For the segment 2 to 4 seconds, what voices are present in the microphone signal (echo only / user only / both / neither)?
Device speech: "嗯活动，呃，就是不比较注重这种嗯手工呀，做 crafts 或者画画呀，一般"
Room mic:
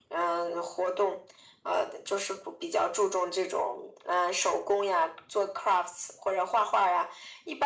echo only